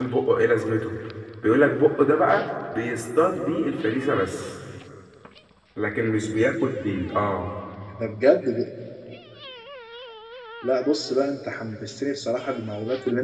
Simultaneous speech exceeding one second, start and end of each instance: none

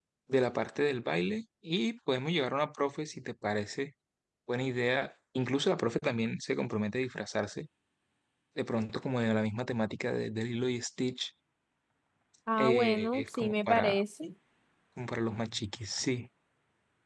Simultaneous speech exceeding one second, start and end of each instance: 12.6-14.0

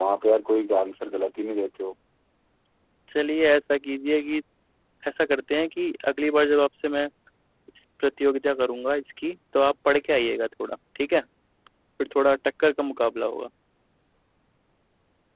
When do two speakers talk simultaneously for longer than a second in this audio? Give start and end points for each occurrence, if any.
none

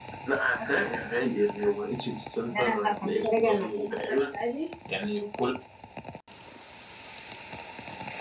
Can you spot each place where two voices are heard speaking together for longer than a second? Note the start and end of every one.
2.5-4.1

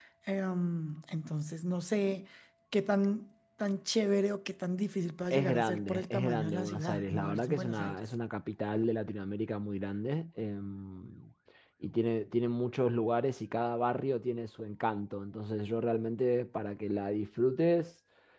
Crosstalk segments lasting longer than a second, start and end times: 5.3-8.0

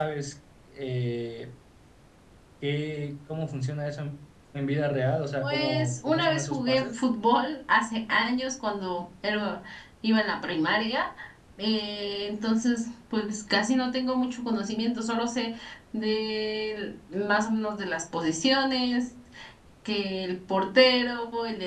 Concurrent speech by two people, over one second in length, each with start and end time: 5.4-7.0

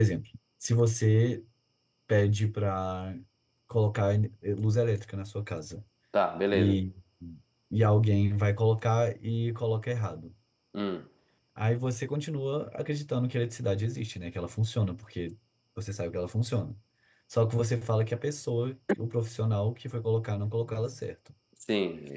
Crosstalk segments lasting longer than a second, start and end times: none

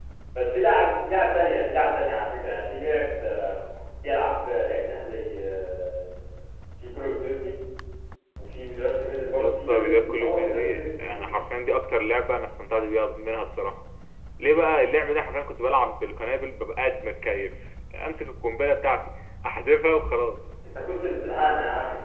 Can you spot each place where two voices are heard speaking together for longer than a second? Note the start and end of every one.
9.4-11.2

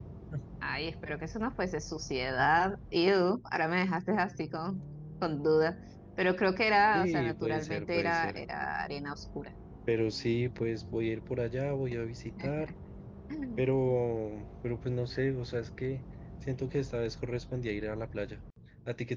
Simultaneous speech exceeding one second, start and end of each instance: 6.9-8.4

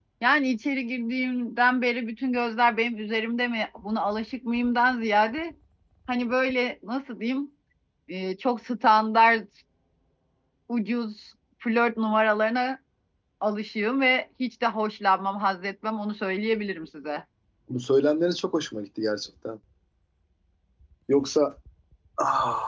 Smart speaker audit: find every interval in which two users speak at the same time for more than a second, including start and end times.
none

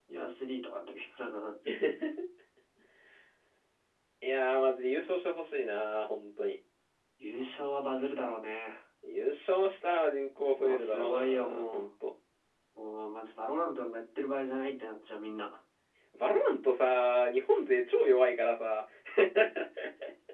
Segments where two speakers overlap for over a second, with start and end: 10.6-11.9

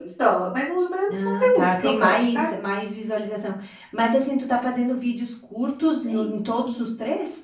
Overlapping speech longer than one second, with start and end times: 1.1-2.5

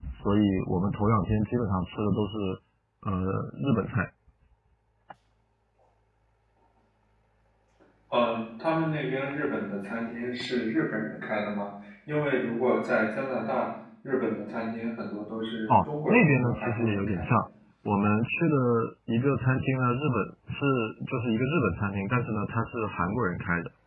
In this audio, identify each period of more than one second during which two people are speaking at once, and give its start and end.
15.7-17.3

